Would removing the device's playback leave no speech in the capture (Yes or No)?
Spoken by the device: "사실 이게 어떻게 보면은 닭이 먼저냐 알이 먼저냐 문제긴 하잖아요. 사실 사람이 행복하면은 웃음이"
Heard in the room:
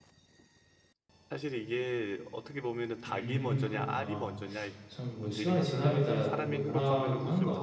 No